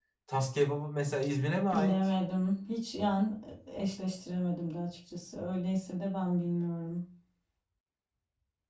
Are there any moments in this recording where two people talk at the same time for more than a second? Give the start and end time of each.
none

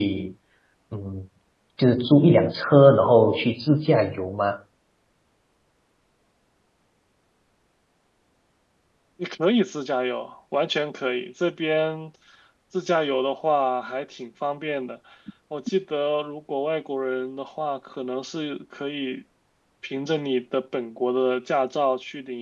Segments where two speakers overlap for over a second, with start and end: none

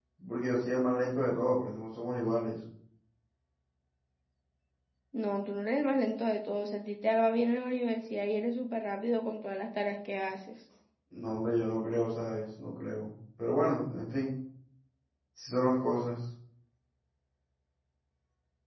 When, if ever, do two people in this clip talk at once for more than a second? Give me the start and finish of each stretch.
none

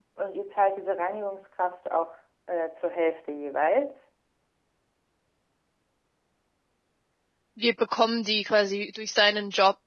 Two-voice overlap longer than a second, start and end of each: none

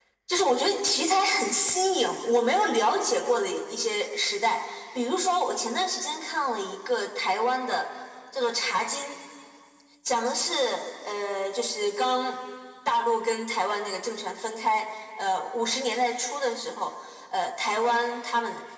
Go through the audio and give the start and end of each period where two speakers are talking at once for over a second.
none

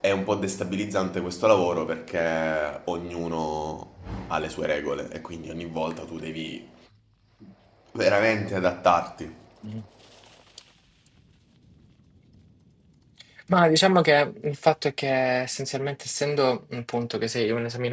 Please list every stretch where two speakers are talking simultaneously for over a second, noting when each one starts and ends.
none

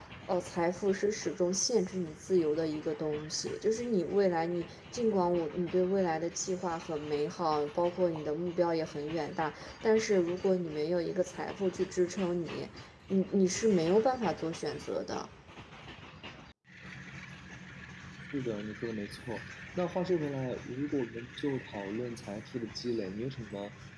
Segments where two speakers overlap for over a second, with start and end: none

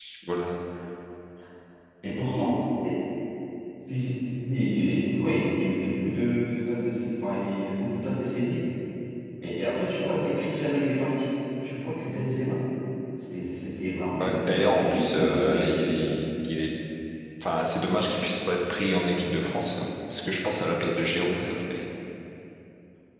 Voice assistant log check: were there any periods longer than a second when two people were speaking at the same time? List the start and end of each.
14.2-15.7

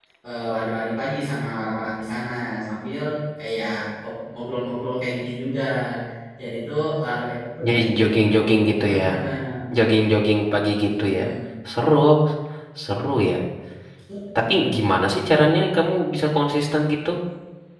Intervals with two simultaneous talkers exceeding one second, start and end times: none

